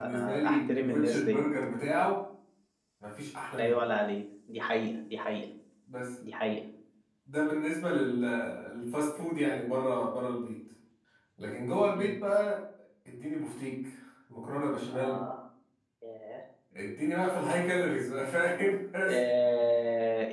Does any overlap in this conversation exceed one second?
Yes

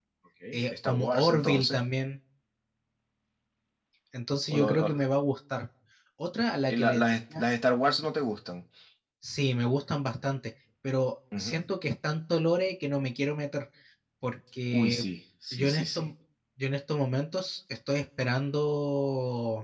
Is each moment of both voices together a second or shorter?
No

